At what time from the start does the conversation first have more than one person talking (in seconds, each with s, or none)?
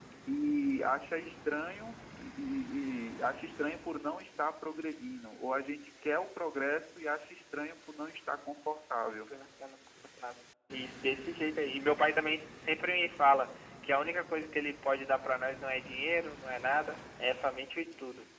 none